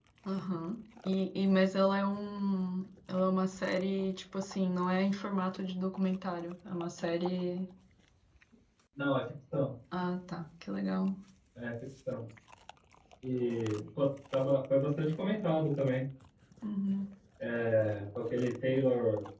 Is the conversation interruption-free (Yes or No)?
Yes